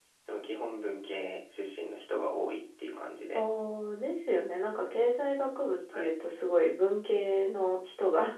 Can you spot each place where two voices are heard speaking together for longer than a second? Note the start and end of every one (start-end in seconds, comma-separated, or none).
none